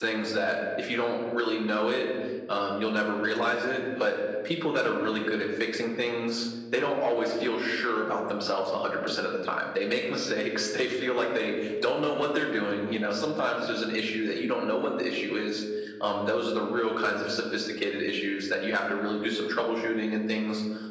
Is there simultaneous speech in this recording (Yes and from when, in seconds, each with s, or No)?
No